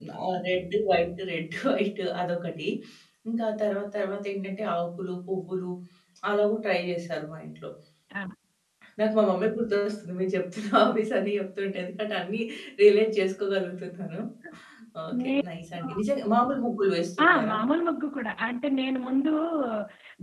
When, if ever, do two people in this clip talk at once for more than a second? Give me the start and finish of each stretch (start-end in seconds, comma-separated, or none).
none